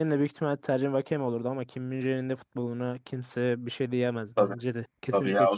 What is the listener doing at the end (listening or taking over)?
taking over